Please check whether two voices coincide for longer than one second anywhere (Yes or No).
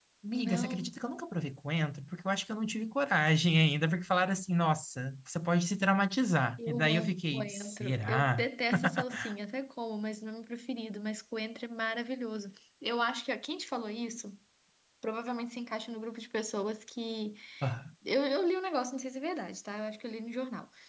Yes